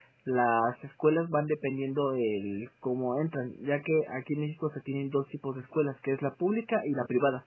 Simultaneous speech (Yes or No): No